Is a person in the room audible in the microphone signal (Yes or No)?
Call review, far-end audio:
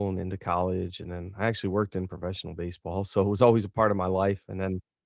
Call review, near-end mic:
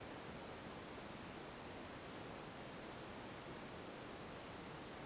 No